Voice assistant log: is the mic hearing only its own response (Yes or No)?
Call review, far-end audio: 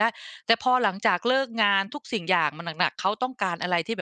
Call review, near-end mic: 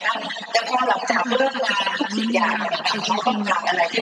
No